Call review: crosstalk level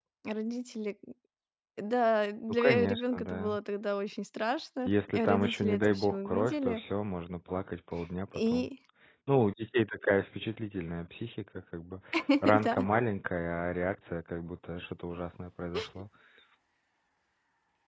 present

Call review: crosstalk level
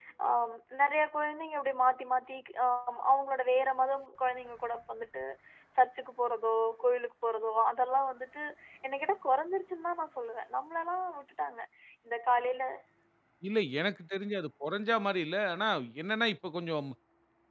none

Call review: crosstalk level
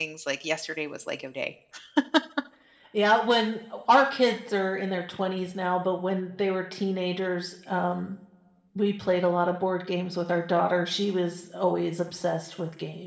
none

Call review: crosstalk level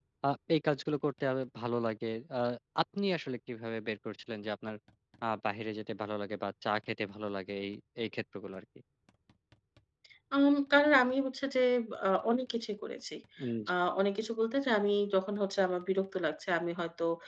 none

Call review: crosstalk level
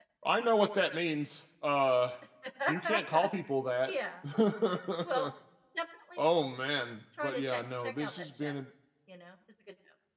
present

